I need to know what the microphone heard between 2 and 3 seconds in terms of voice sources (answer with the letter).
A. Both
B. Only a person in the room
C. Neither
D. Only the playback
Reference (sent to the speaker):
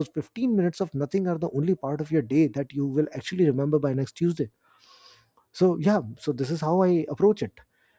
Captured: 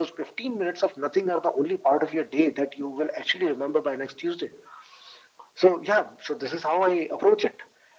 D